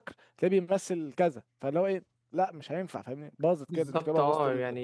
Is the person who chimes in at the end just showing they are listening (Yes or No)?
No